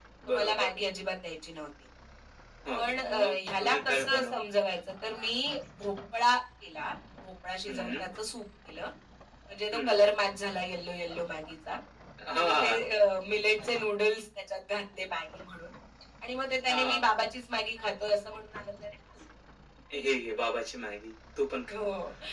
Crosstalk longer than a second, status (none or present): present